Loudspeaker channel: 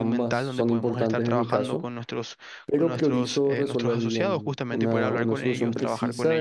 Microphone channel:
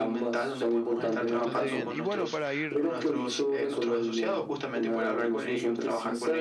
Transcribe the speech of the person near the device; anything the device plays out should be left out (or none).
Mm, bastante bien. Y bueno, para ir